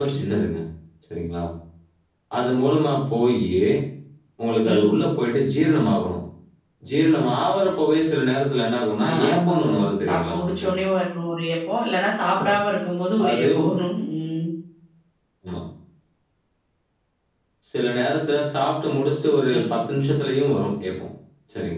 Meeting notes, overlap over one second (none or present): present